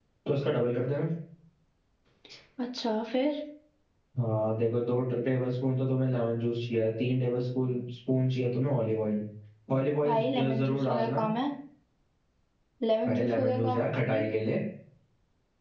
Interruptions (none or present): present